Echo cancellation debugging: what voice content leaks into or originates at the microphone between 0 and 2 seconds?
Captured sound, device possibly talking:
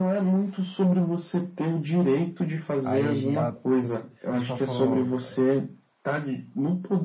echo only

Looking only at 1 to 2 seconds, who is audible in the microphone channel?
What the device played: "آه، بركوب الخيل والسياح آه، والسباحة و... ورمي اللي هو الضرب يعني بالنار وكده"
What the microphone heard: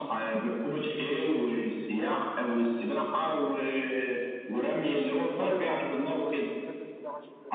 echo only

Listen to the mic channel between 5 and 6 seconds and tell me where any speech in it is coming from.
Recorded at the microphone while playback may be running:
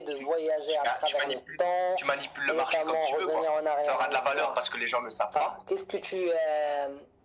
echo only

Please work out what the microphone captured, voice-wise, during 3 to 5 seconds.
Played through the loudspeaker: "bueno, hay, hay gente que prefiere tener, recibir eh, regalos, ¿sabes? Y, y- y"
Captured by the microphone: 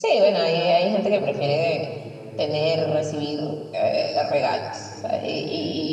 both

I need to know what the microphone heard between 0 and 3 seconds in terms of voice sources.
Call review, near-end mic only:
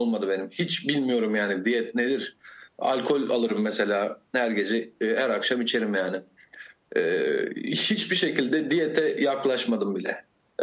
echo only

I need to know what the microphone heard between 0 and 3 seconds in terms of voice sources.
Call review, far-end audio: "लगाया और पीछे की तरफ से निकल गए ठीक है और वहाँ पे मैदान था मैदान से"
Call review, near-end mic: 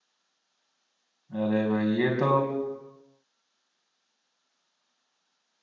user only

